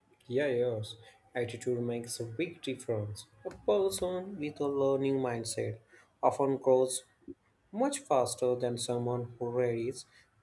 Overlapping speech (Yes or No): No